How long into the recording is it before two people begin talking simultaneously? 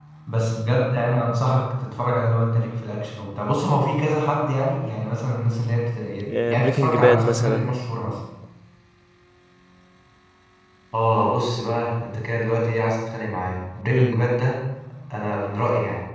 6.5 s

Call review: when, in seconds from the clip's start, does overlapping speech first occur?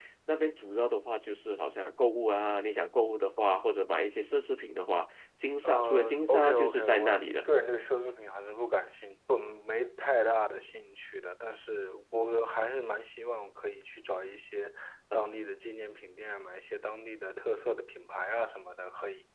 5.6 s

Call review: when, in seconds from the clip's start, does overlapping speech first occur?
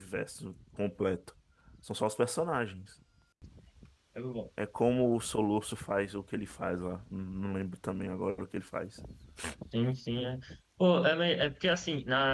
none

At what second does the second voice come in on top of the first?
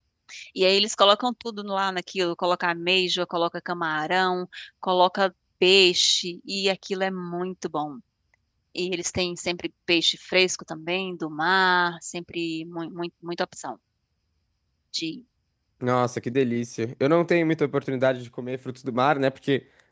none

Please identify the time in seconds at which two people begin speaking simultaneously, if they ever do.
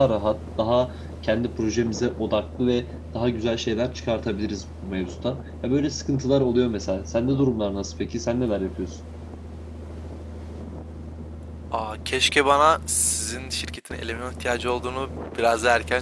none

